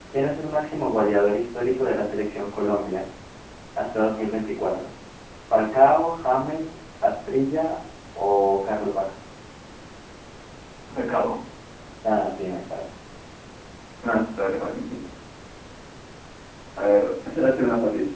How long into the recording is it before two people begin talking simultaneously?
none

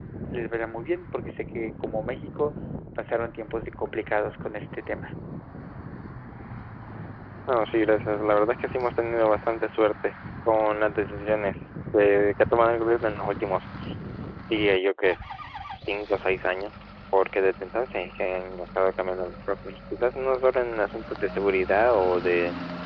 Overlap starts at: none

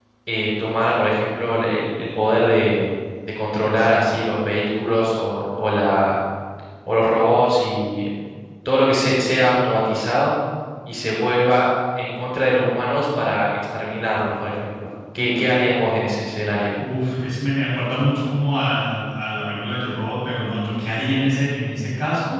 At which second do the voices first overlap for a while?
none

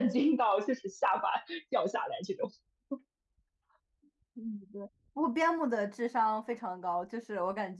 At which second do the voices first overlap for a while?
none

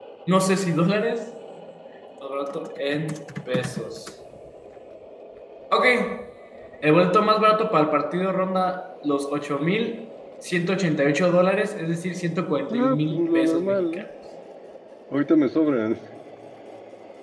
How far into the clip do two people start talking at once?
12.7 s

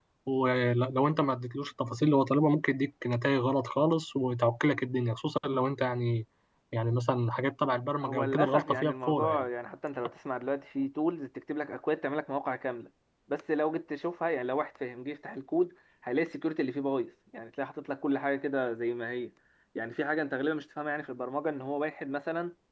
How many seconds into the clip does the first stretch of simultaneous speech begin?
8.0 s

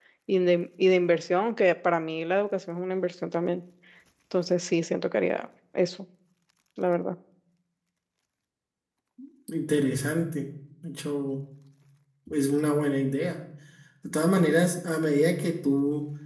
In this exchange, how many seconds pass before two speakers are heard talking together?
none

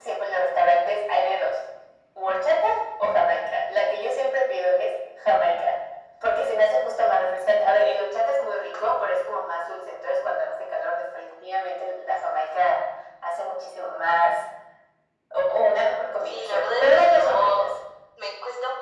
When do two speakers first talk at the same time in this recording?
16.2 s

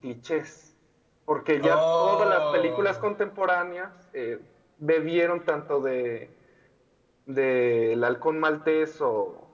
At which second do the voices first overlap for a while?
1.6 s

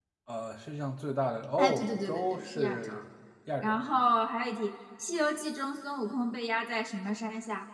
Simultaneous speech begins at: 1.6 s

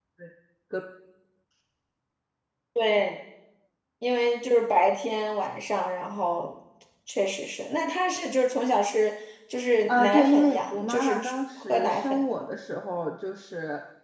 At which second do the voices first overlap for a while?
9.9 s

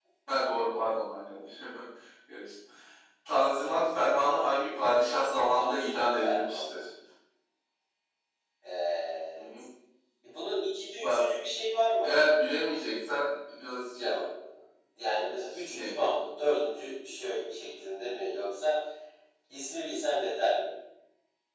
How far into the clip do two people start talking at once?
5.5 s

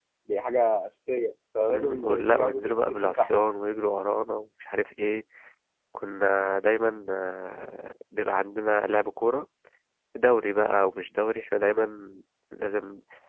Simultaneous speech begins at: 1.7 s

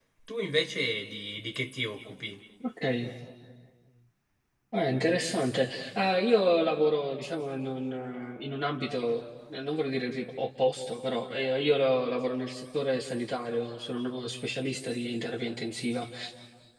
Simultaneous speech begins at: none

